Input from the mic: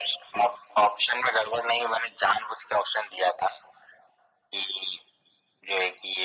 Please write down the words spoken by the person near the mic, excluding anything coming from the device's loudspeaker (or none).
none